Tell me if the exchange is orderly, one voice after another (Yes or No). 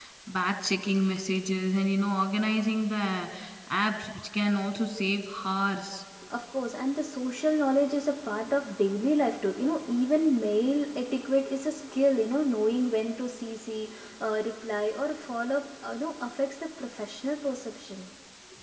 Yes